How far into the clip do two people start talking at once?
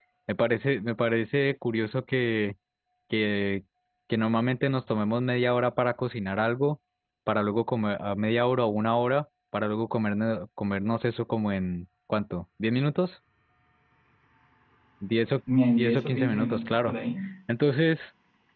15.7 s

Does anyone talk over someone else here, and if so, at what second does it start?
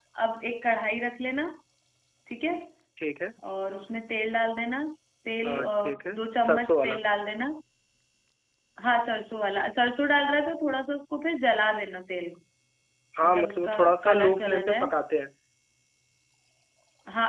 5.4 s

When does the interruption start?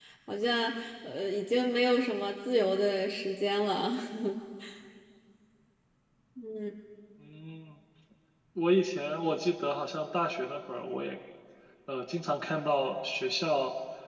none

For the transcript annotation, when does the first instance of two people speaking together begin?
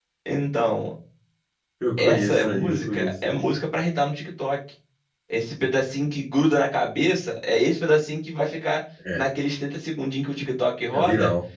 2.0 s

